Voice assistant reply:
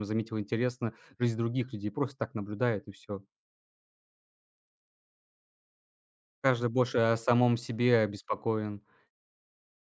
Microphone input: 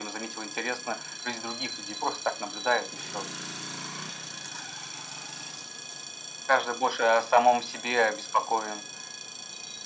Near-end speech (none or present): none